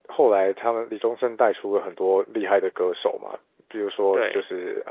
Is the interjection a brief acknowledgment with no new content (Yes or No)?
Yes